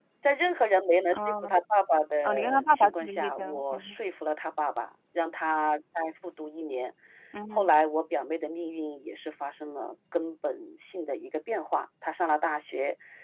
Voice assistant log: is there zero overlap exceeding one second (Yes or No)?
No